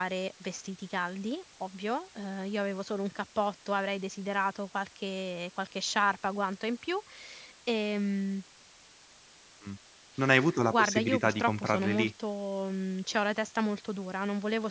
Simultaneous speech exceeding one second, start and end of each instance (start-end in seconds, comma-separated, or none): 10.7-12.1